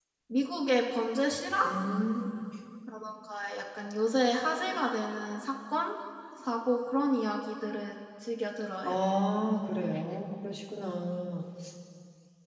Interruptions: none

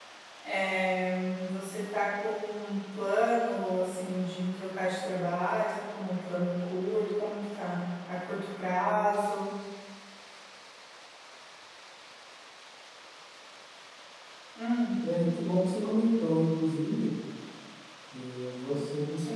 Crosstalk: none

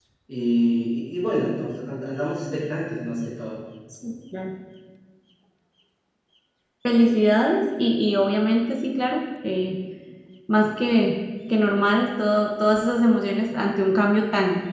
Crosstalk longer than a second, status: none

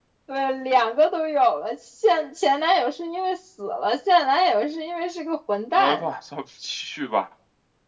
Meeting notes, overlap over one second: none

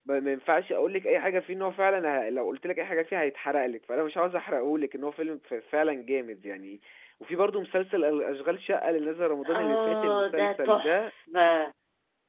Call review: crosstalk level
present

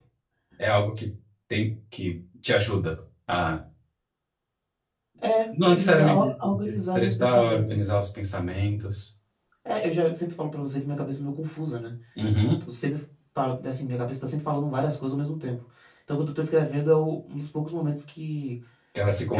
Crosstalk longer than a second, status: present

